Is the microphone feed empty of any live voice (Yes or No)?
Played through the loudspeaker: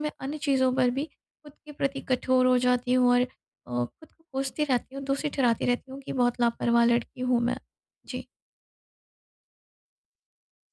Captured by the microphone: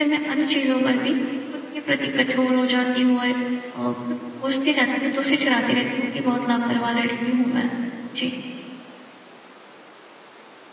Yes